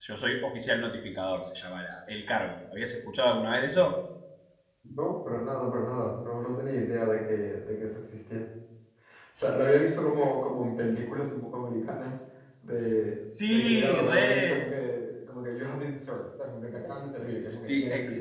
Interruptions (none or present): present